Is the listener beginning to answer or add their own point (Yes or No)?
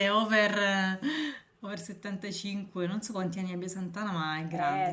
Yes